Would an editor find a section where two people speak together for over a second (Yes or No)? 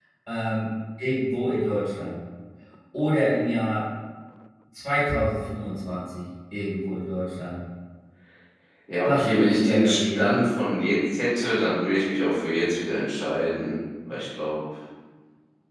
Yes